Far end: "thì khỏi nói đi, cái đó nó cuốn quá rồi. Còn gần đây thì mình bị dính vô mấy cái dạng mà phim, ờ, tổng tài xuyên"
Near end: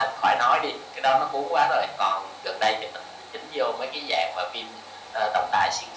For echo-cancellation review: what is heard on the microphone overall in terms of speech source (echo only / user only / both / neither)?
echo only